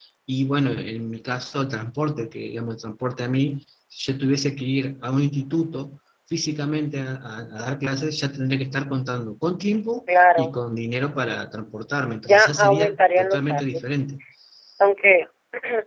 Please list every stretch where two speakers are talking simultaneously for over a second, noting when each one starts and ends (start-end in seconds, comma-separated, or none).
12.2-13.8